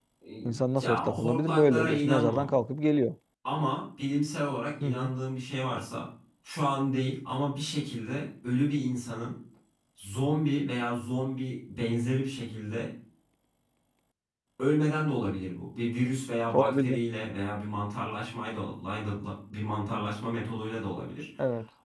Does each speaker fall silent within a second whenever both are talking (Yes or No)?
No